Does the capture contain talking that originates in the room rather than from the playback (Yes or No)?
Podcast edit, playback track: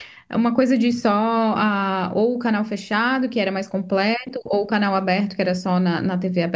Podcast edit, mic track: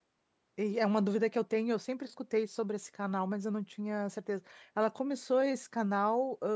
Yes